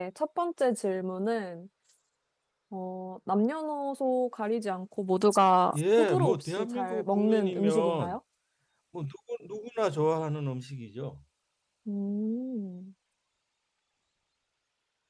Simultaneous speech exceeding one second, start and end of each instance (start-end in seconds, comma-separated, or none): 5.8-8.2